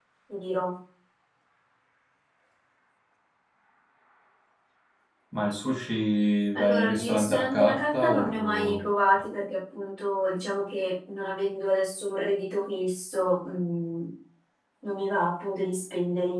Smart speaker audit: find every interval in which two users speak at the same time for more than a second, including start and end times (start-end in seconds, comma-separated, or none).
6.5-8.8